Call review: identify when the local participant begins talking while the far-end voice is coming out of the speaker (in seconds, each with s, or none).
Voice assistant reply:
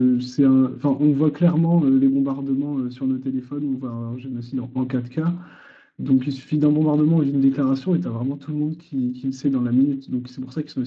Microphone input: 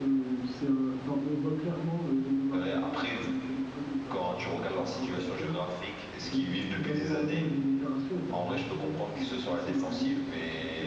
2.5 s